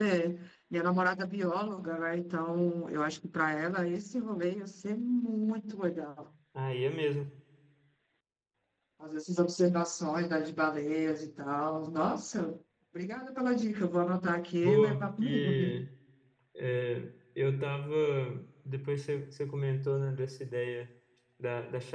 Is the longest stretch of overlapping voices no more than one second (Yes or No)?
No